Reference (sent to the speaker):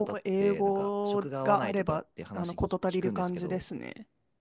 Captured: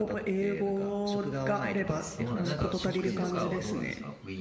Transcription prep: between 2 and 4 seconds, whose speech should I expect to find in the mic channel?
both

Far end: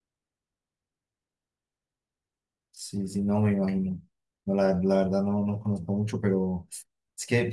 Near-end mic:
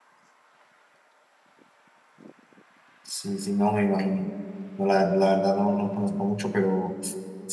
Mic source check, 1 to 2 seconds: neither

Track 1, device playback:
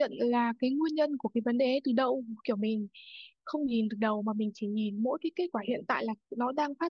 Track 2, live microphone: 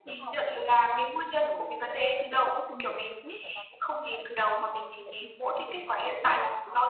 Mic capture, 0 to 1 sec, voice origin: both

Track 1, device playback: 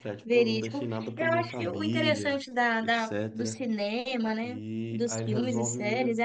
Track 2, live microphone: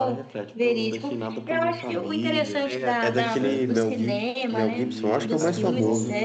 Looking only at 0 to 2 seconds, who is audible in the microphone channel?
echo only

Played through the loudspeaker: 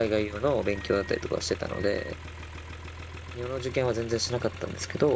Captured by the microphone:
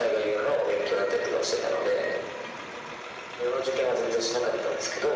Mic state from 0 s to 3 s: echo only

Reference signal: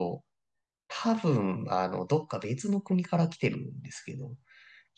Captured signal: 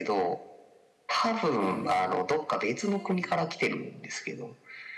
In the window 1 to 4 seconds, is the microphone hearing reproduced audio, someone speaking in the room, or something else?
both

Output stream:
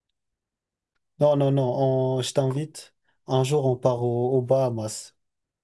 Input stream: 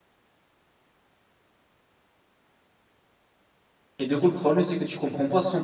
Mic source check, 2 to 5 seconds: user only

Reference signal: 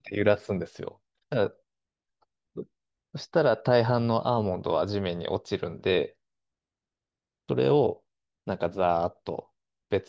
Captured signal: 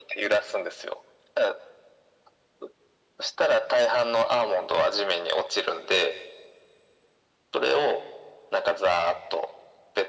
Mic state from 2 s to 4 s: echo only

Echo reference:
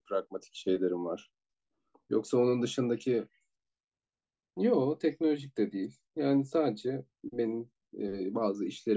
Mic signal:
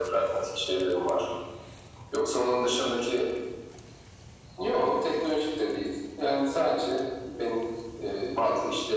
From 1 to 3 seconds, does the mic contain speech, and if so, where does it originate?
echo only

